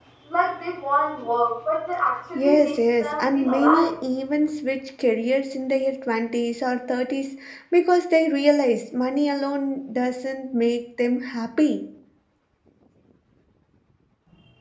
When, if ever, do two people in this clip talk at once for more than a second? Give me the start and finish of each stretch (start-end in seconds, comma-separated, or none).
2.4-3.9